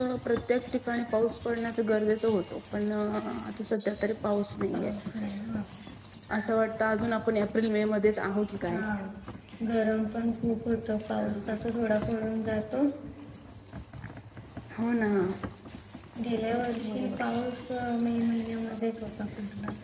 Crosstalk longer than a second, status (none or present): none